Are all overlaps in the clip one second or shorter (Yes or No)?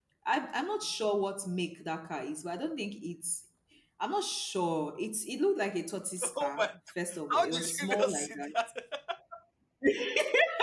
No